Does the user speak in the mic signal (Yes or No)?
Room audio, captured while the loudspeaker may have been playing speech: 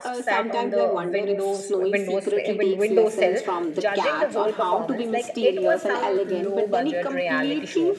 Yes